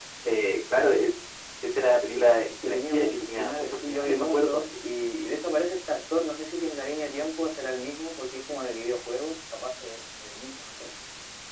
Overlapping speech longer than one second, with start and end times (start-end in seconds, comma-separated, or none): 2.6-4.6